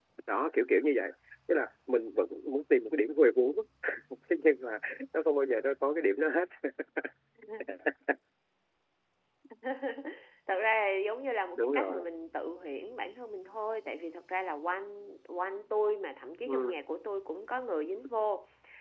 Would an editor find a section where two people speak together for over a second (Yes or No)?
No